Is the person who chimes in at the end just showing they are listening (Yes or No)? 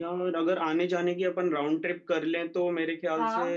Yes